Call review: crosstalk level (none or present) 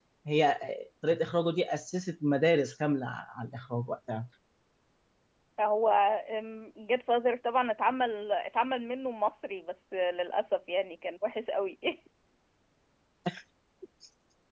none